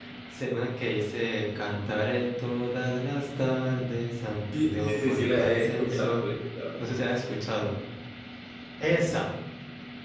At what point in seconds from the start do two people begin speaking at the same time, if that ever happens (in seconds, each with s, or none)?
4.5 s